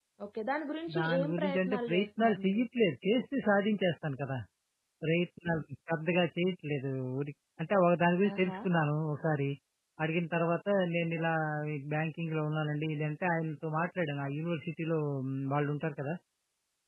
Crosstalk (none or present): present